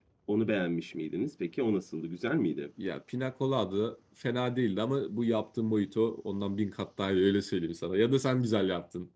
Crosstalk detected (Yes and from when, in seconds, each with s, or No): No